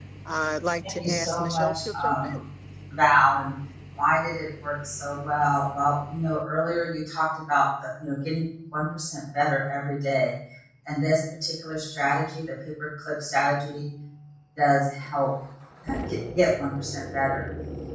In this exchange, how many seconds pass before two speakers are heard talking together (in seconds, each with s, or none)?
1.0 s